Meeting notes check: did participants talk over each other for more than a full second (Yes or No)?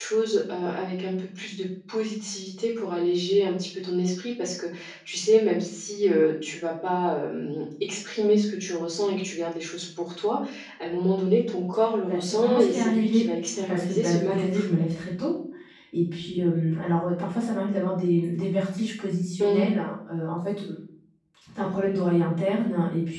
Yes